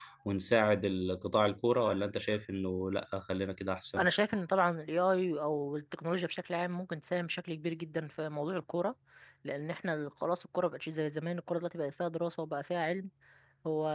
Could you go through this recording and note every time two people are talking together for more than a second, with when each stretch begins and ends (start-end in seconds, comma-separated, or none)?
none